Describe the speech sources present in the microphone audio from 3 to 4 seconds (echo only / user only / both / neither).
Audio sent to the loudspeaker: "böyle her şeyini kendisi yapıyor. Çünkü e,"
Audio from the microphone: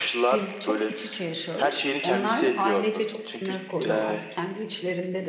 both